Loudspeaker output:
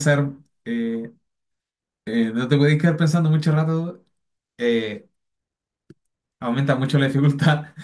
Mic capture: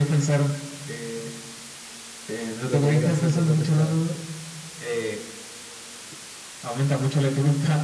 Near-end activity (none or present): present